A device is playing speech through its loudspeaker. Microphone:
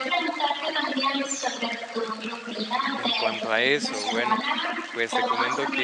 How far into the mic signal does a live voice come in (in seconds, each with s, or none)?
2.9 s